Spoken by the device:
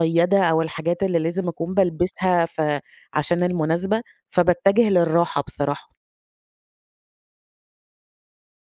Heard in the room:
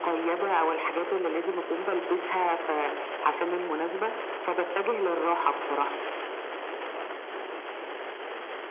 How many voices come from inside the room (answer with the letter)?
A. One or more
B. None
B